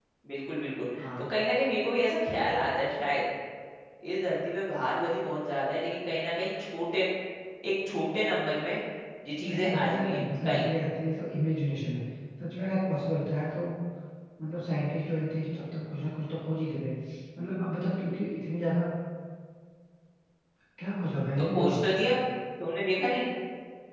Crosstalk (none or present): present